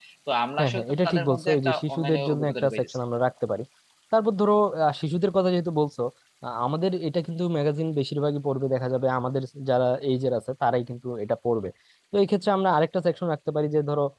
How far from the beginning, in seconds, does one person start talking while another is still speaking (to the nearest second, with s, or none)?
1 s